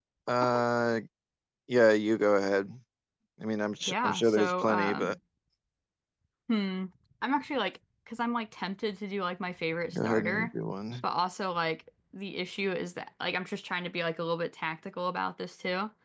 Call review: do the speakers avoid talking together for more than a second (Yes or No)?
No